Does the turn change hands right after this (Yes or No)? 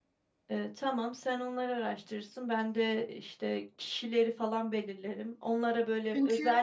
No